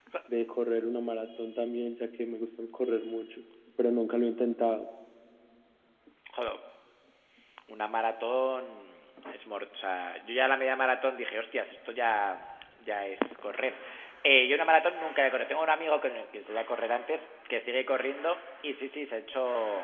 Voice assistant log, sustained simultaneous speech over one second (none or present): none